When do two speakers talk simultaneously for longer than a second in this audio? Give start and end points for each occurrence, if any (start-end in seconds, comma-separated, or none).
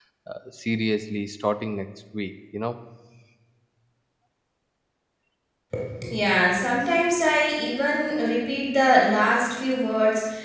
none